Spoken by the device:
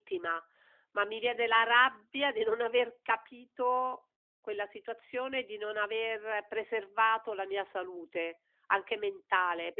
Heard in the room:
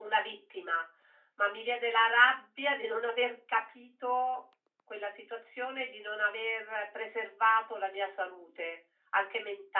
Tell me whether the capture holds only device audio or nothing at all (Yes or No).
Yes